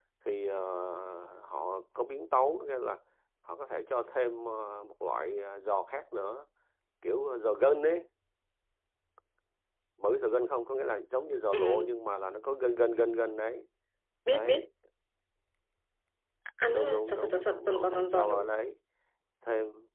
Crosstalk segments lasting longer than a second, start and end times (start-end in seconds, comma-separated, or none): 16.7-18.5